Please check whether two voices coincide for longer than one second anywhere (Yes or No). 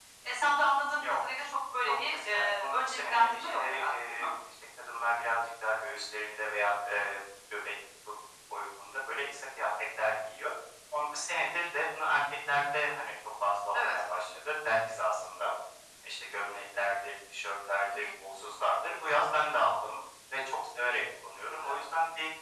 Yes